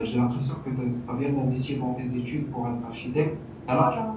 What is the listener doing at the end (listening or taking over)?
listening